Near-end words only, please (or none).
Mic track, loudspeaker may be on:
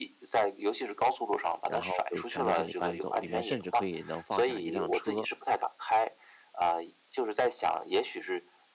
然后就全都给你搬走，里面甚至可以能放下一辆车，